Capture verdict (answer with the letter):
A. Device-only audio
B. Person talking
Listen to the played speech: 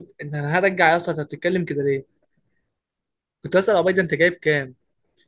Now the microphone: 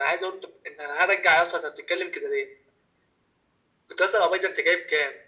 A